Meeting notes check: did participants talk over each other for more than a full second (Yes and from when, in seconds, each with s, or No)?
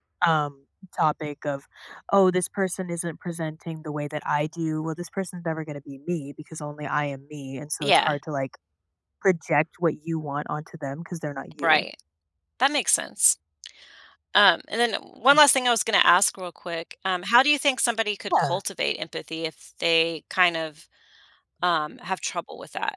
No